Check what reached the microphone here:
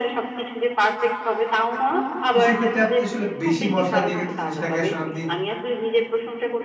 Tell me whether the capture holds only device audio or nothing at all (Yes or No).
No